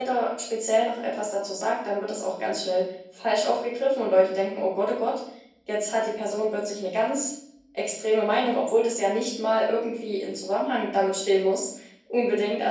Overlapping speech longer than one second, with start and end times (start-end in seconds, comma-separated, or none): none